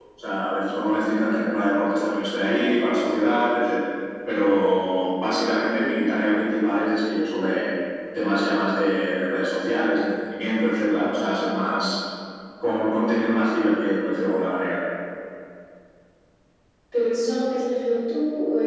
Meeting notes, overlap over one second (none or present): none